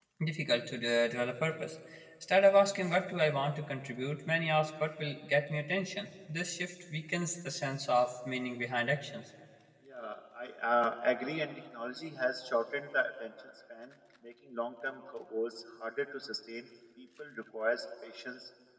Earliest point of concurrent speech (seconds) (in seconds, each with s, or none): none